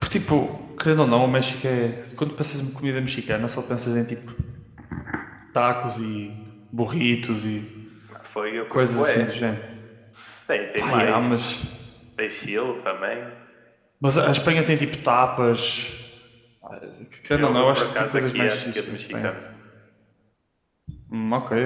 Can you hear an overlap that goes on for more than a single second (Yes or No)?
Yes